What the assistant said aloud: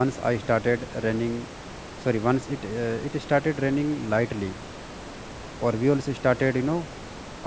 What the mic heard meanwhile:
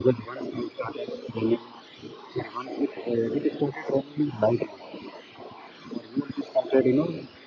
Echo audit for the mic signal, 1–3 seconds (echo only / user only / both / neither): echo only